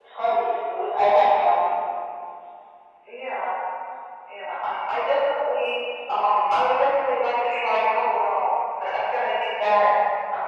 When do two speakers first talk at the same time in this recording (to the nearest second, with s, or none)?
none